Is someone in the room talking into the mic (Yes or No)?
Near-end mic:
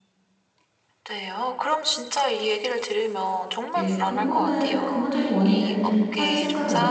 Yes